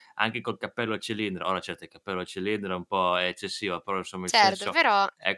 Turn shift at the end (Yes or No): No